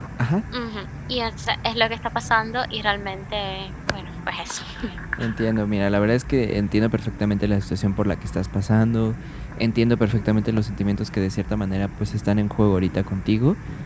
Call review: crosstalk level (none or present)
none